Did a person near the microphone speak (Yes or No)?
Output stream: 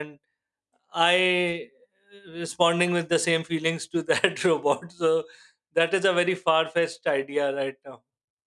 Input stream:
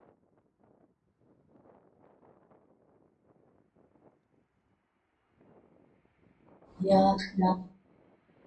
Yes